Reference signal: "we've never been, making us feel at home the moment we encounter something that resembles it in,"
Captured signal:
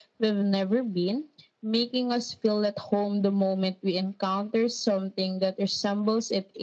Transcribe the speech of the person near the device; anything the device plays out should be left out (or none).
none